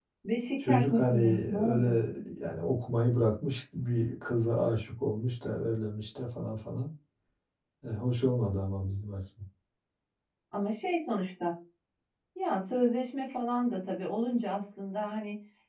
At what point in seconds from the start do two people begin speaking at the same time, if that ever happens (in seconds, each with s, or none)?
0.6 s